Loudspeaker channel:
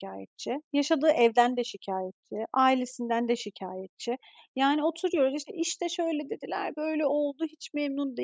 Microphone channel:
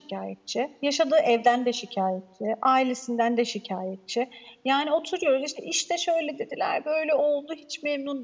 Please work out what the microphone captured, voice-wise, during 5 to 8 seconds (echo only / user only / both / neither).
echo only